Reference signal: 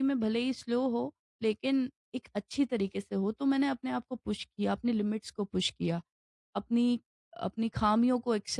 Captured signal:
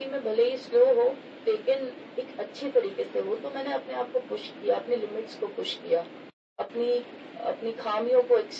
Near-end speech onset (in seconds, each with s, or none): none